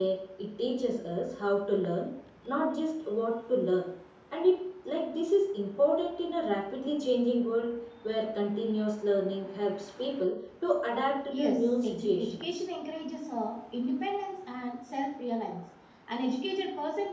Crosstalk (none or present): present